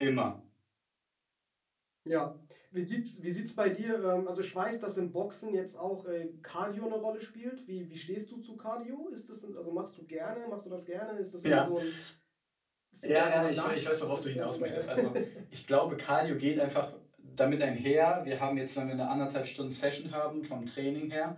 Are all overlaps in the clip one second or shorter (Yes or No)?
No